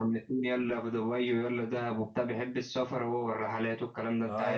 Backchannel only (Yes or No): No